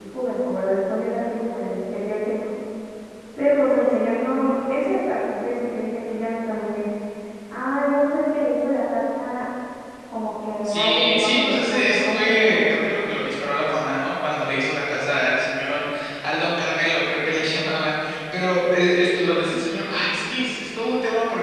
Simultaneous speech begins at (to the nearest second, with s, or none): 11 s